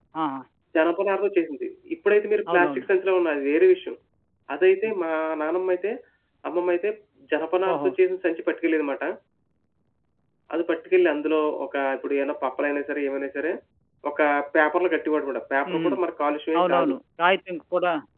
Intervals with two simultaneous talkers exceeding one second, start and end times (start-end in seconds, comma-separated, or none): none